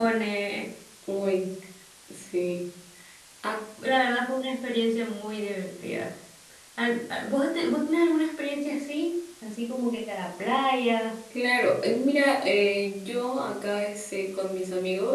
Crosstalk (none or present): none